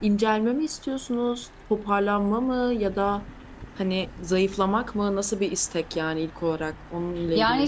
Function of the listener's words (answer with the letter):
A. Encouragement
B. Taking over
B